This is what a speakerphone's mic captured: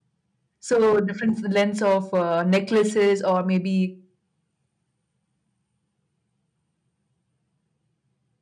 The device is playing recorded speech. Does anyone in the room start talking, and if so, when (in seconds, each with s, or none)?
0.7 s